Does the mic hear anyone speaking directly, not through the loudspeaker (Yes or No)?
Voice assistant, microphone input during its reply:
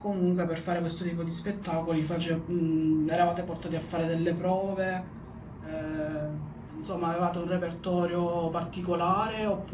Yes